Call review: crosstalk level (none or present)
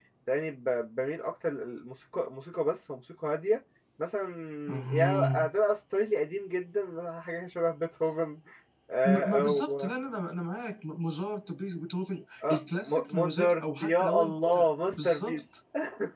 present